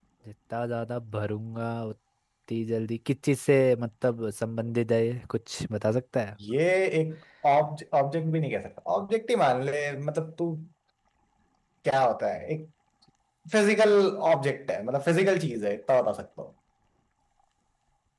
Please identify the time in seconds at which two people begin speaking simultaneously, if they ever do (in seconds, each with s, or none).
none